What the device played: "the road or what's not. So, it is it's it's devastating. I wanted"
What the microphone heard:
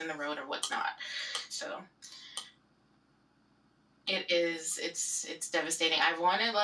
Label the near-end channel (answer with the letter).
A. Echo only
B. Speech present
A